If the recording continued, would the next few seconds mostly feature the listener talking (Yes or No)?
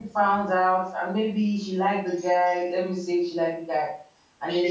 No